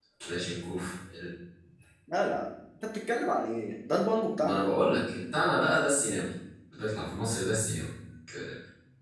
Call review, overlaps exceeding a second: none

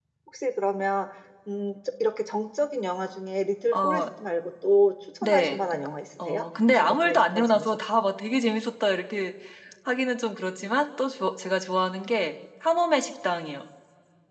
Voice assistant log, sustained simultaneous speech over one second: present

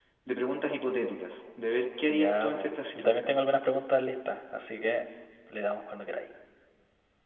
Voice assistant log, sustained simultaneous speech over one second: present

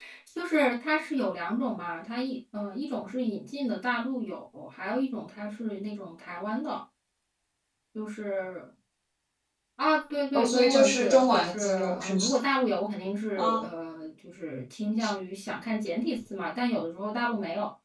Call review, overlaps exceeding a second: present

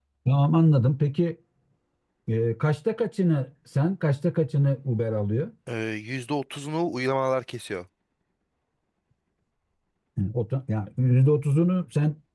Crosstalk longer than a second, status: none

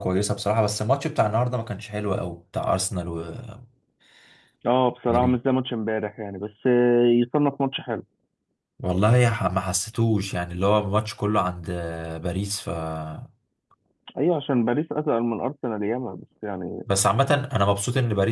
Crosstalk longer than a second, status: none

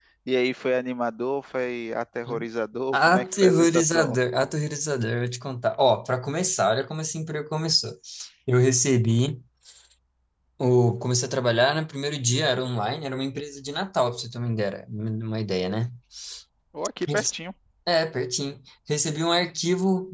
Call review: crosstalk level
present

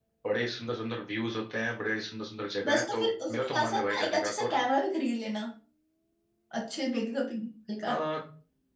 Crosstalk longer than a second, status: present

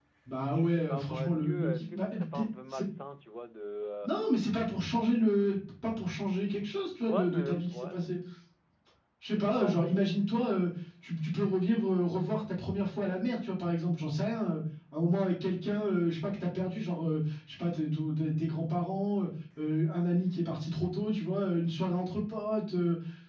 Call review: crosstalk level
present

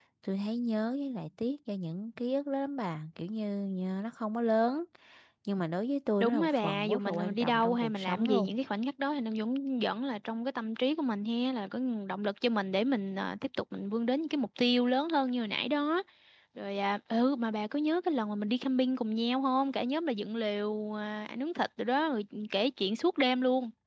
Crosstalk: present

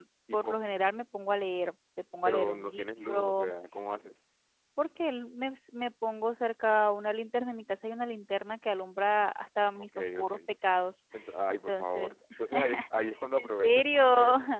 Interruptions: present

